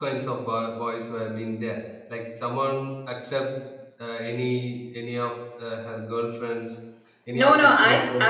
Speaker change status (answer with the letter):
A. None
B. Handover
B